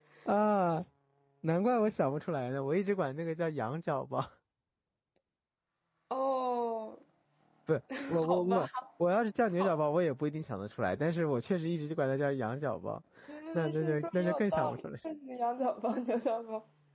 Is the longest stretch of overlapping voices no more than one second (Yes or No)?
No